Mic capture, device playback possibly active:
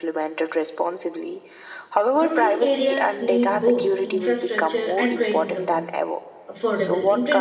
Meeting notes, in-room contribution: present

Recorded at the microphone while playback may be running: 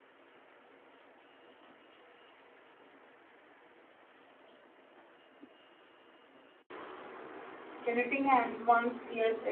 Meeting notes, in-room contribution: present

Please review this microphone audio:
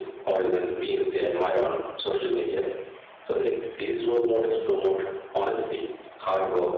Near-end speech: none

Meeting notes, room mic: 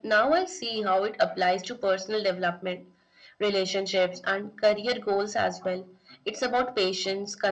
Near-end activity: none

